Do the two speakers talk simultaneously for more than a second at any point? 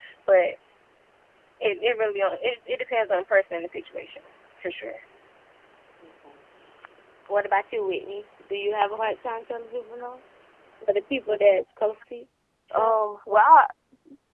No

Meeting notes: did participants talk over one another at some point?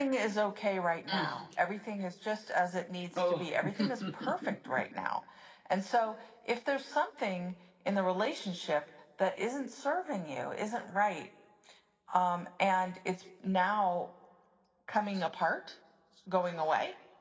Yes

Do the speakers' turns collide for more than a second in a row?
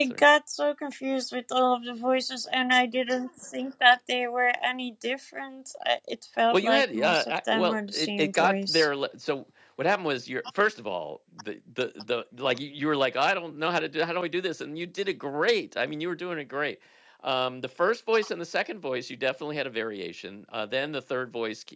Yes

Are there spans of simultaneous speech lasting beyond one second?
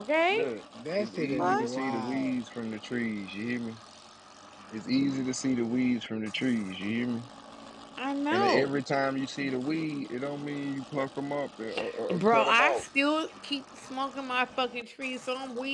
Yes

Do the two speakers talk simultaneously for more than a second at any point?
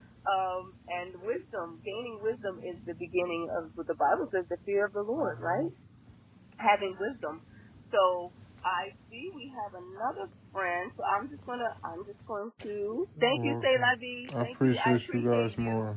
Yes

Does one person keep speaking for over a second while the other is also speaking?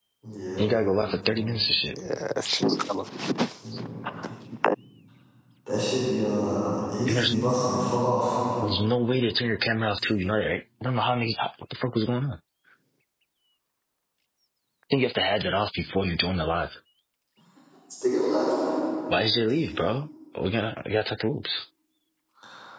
No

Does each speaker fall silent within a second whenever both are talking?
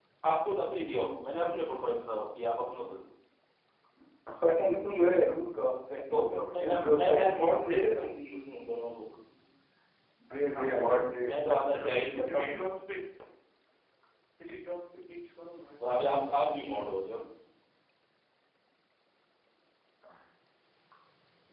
No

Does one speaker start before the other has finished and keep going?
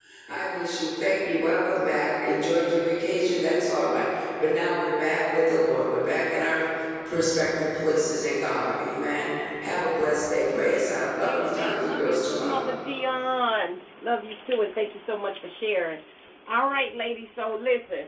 Yes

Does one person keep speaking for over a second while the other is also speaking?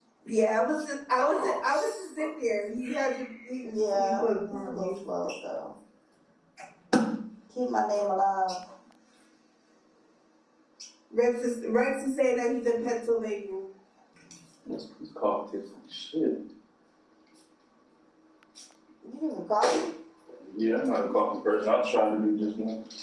Yes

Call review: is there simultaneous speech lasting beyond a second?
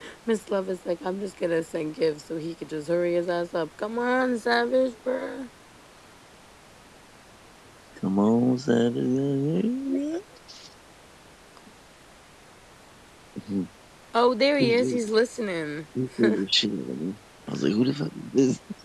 No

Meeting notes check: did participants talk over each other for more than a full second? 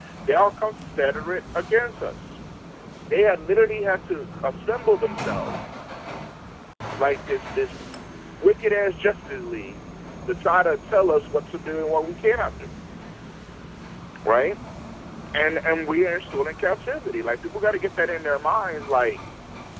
No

